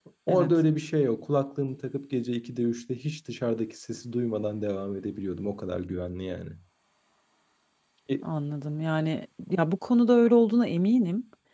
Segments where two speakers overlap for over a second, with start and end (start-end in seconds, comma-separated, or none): none